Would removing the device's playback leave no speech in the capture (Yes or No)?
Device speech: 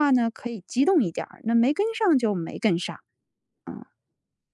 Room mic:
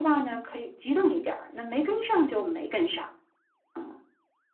Yes